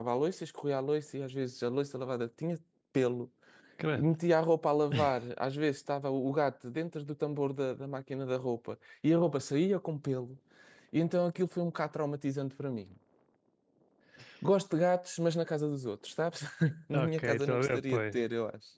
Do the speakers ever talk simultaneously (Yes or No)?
Yes